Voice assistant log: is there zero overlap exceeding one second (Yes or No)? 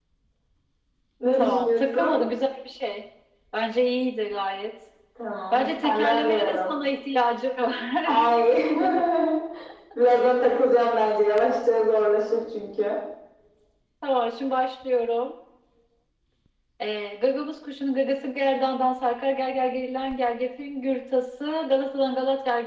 No